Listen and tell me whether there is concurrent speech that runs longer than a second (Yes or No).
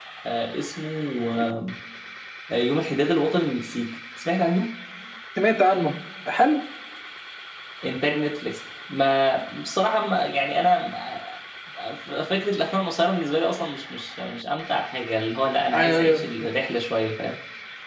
No